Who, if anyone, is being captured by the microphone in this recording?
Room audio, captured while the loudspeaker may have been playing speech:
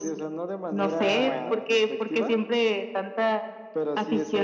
both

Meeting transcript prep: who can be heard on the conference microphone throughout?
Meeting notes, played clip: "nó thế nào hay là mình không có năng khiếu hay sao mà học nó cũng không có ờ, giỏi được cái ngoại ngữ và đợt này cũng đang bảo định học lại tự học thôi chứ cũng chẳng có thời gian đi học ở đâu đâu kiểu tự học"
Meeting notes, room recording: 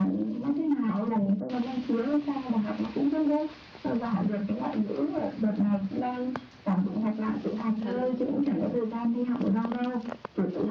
both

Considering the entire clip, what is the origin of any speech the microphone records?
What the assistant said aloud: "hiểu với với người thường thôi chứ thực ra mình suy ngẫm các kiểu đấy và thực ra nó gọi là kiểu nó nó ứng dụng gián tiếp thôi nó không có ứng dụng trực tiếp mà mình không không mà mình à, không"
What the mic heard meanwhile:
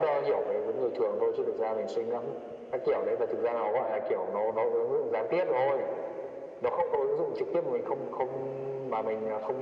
echo only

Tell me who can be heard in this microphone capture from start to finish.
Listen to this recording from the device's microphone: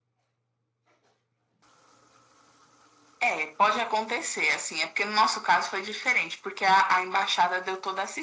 echo only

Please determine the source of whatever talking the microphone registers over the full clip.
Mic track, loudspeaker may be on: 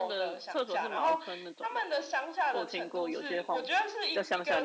both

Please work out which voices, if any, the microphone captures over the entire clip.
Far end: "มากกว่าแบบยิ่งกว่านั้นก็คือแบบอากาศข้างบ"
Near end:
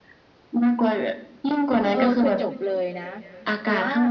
both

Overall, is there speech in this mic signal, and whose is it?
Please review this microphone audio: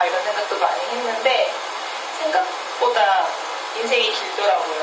echo only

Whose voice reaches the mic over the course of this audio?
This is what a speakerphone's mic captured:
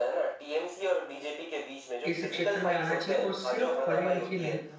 both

